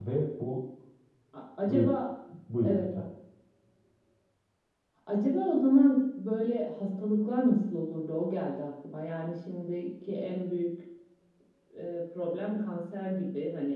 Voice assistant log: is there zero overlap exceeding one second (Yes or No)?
Yes